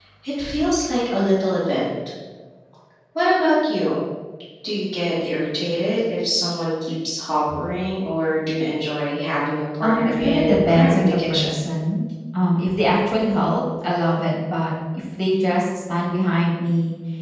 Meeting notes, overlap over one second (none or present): present